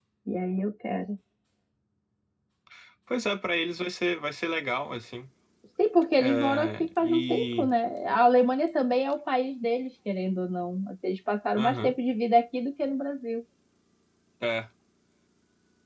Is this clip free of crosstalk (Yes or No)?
No